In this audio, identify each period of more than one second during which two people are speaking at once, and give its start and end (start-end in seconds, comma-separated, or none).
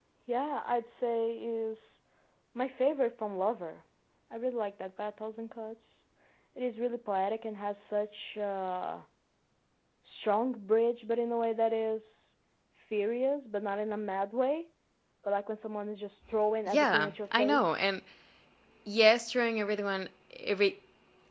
16.7-17.9